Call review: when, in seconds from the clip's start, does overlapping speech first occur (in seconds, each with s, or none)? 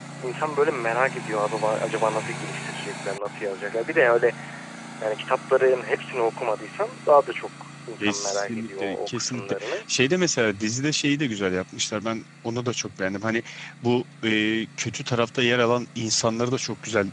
8.0 s